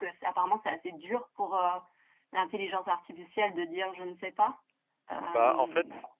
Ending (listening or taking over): taking over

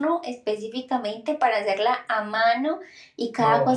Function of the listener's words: listening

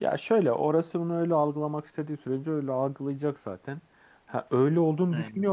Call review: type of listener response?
listening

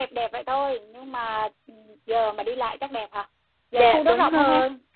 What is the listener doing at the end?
taking over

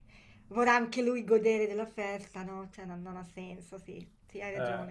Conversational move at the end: taking over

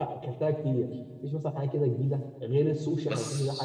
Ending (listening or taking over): listening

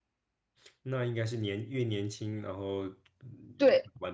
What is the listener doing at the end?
taking over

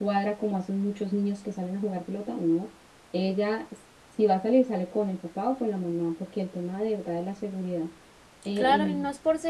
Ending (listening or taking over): taking over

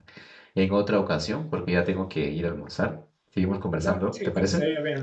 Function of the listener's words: taking over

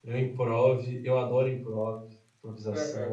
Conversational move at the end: taking over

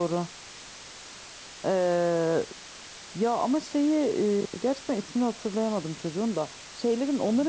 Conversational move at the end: listening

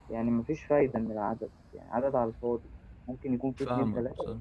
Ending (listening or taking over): listening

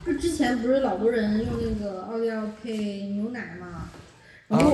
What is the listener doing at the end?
taking over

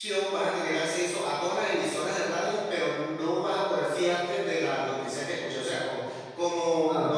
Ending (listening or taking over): listening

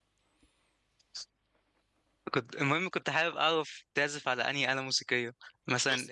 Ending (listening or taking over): listening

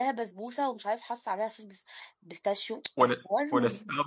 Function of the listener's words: taking over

